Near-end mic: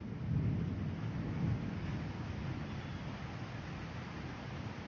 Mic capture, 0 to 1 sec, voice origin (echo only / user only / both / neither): neither